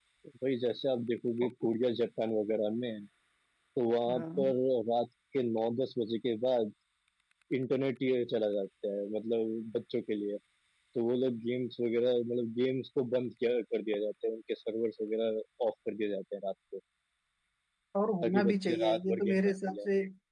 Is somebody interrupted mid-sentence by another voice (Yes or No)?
Yes